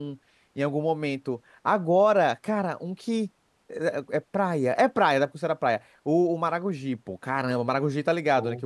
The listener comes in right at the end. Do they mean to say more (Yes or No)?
No